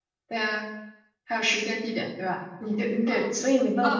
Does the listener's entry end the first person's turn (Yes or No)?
Yes